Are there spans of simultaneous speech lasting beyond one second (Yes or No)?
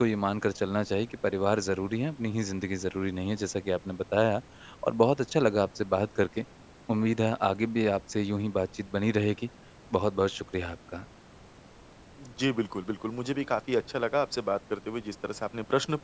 No